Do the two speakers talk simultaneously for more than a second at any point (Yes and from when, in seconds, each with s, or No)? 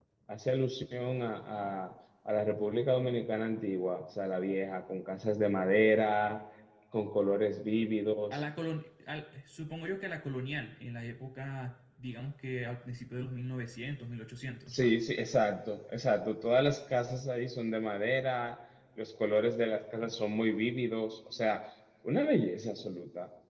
No